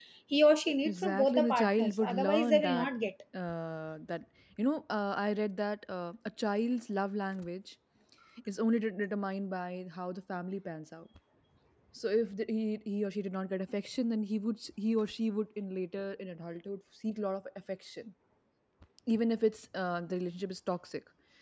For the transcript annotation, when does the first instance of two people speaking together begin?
0.8 s

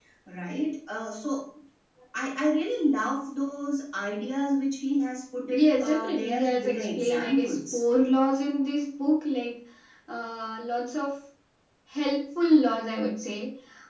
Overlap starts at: 5.4 s

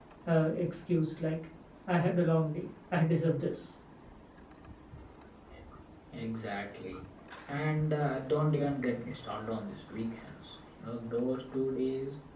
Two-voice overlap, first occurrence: none

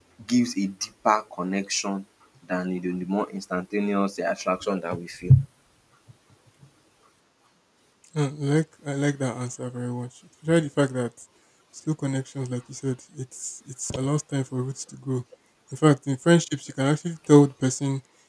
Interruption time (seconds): none

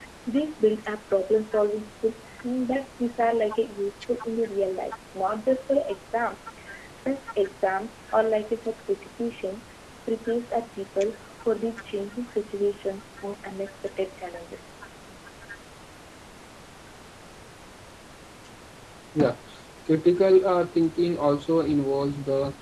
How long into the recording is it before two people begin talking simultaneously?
none

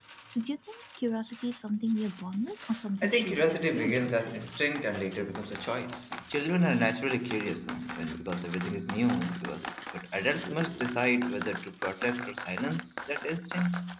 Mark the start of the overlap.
3.0 s

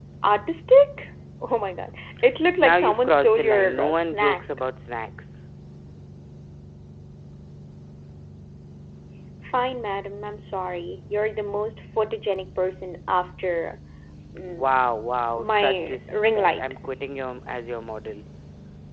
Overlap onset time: 2.6 s

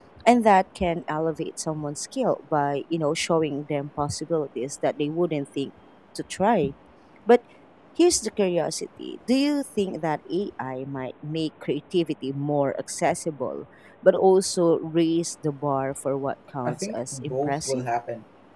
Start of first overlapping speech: 16.6 s

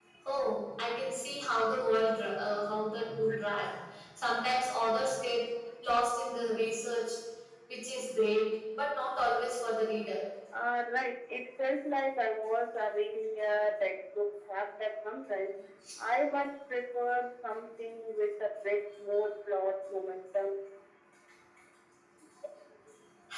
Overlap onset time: none

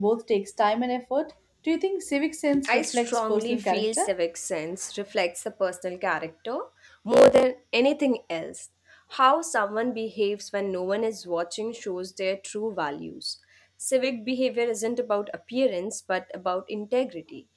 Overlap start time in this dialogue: 2.5 s

